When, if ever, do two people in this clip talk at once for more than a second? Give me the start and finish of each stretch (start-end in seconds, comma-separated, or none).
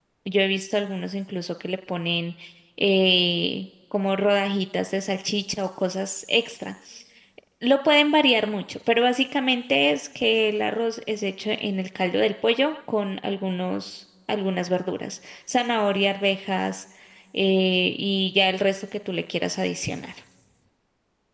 none